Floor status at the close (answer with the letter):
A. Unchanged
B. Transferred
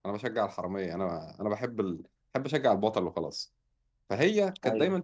A